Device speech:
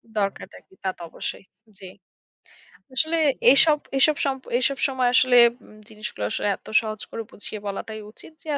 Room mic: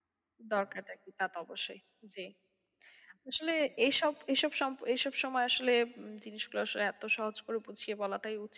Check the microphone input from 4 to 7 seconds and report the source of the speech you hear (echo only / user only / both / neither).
echo only